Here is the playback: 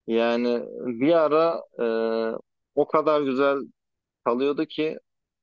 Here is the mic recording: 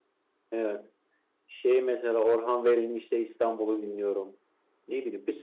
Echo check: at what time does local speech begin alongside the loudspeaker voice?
0.5 s

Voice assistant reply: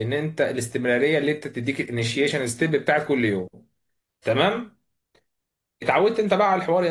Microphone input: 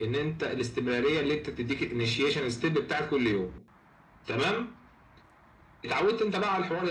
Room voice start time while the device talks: none

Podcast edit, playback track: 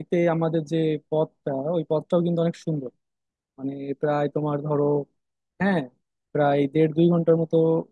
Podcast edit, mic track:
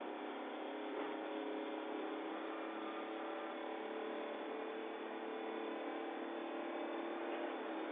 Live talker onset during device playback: none

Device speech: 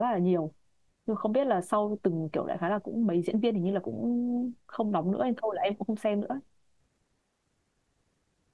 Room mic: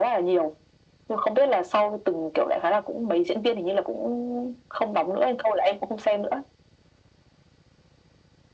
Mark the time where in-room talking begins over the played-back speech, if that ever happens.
none

